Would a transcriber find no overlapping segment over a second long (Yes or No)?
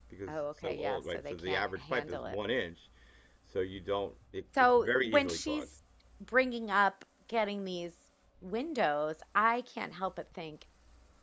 No